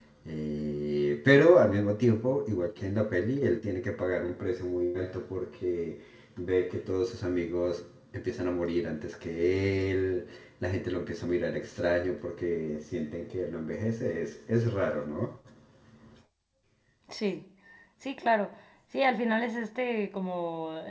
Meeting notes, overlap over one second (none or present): none